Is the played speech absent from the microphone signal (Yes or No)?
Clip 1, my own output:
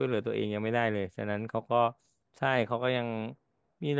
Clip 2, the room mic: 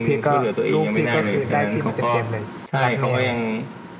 No